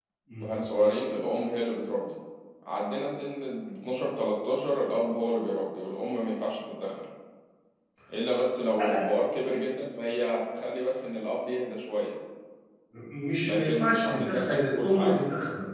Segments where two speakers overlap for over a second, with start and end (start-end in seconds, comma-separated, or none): 13.4-15.2